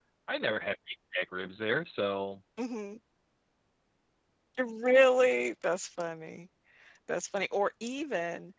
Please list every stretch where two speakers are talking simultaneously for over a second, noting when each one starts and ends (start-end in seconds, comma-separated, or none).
none